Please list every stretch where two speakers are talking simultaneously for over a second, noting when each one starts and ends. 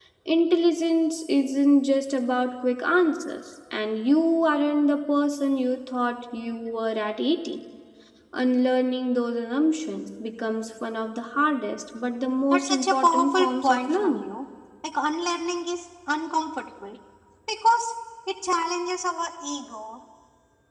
12.5-14.2

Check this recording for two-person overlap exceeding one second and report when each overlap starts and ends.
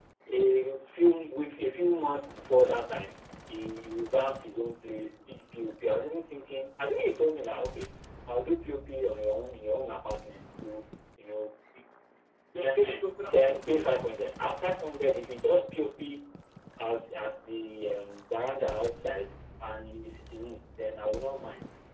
12.6-14.0

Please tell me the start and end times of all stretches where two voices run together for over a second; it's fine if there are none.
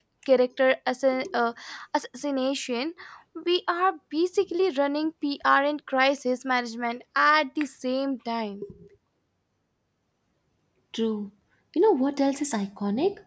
none

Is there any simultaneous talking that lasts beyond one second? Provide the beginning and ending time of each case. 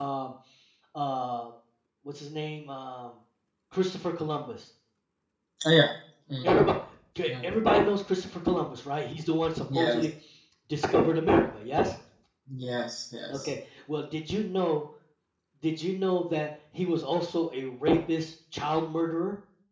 none

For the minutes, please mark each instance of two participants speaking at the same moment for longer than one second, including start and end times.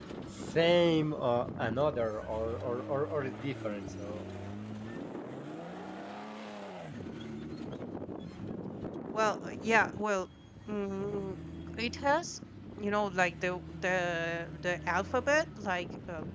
none

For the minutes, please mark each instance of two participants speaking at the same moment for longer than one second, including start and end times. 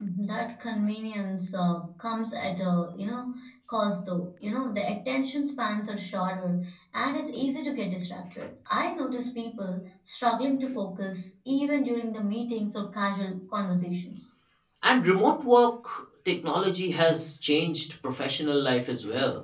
none

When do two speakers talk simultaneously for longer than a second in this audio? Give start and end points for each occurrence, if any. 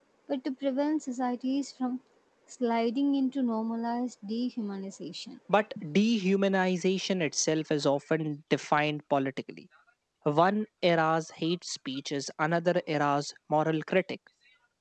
none

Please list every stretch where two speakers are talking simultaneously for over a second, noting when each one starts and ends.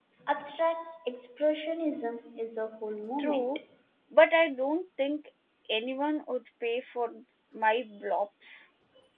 none

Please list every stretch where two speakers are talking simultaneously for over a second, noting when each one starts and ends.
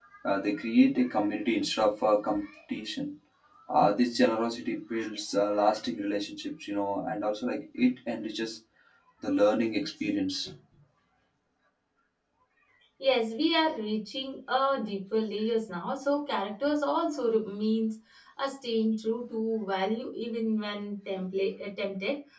none

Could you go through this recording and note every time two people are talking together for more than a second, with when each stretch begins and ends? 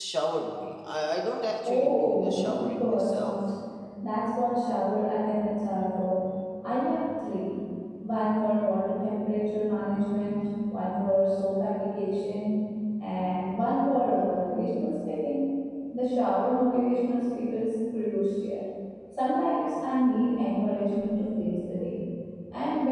1.6-3.4

